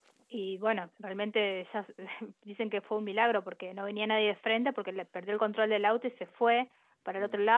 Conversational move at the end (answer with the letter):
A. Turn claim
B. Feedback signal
B